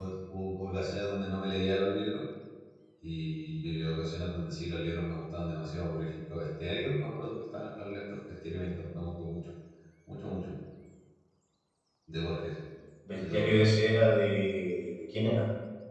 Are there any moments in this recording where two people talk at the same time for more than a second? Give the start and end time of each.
none

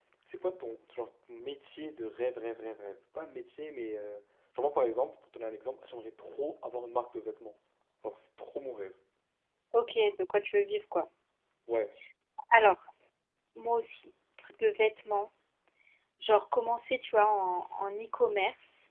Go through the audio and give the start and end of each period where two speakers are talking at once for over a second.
none

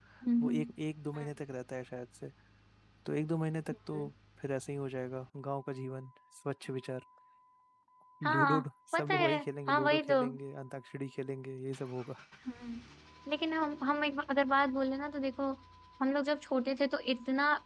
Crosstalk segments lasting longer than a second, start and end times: 9.0-10.2

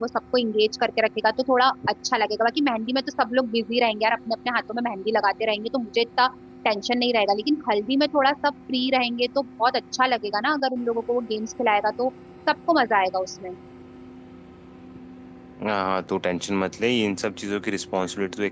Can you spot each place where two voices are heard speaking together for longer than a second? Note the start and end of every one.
none

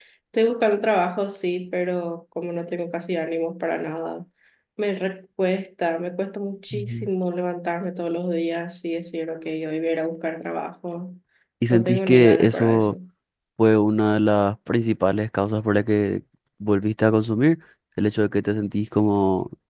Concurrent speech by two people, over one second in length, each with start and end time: 11.7-12.9

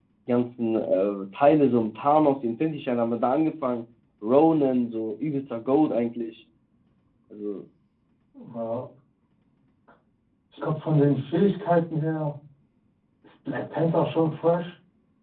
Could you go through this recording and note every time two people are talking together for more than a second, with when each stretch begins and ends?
none

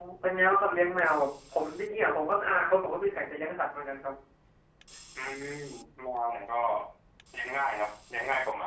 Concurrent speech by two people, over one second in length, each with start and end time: none

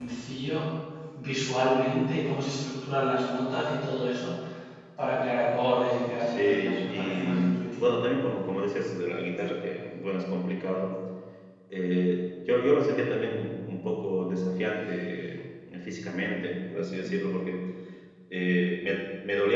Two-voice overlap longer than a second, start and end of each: 6.2-7.4

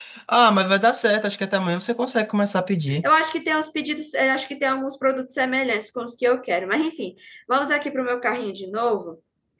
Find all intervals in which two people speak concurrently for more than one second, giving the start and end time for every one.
none

